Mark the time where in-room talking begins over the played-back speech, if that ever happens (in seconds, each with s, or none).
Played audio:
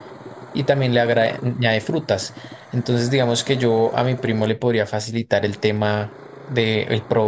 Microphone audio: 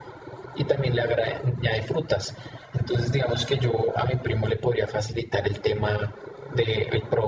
none